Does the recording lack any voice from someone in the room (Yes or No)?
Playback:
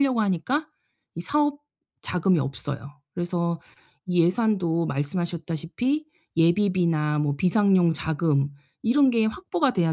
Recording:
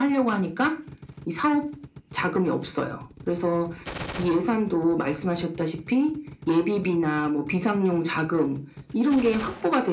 Yes